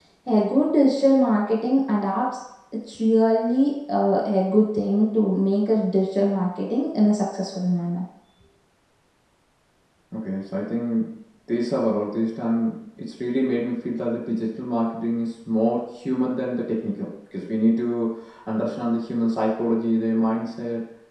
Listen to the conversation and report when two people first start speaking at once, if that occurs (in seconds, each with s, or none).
none